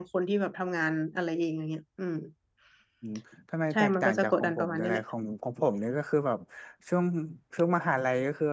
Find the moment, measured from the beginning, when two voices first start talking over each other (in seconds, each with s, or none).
3.7 s